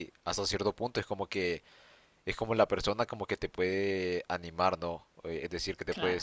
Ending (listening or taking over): listening